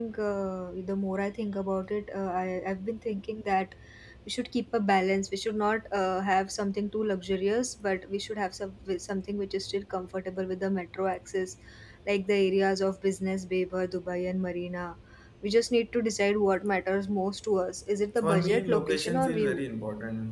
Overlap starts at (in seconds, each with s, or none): 18.2 s